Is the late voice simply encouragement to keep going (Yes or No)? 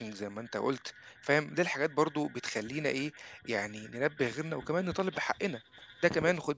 Yes